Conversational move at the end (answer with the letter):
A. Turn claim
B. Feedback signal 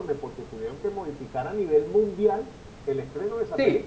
A